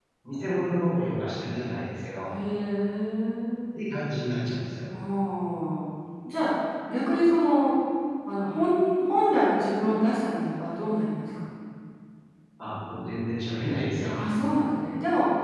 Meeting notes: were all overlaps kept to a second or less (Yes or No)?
Yes